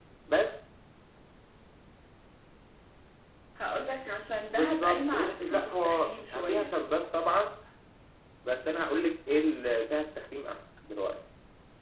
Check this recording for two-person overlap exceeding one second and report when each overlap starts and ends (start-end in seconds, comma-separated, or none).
4.5-6.7